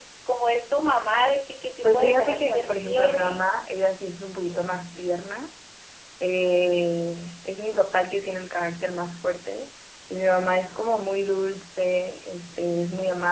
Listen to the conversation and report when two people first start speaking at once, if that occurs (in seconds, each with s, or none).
1.8 s